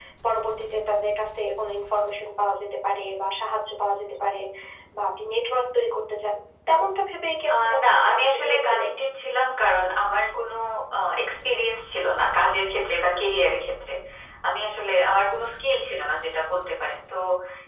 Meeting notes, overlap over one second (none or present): present